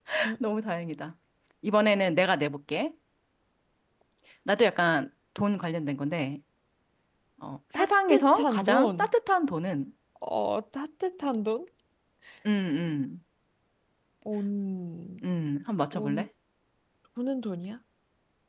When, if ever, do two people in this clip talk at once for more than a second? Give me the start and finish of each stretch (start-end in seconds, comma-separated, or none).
7.8-9.1